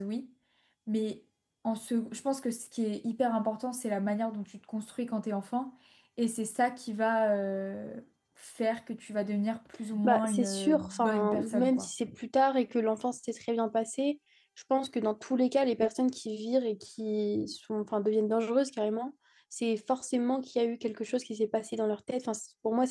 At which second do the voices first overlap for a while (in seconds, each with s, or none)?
10.0 s